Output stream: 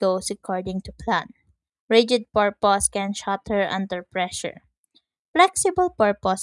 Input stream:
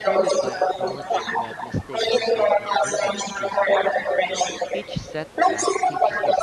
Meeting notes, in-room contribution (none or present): present